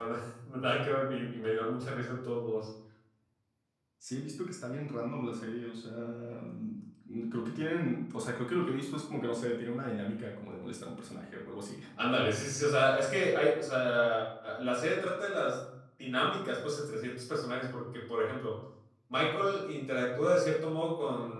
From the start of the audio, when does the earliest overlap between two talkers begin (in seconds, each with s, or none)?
none